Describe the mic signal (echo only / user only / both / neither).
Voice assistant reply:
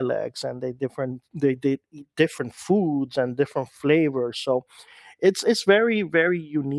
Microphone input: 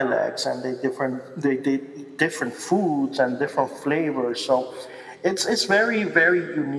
echo only